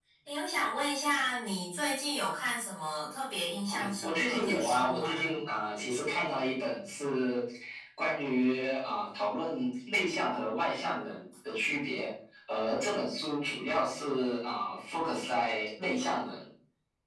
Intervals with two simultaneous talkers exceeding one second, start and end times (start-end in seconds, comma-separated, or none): 3.7-5.4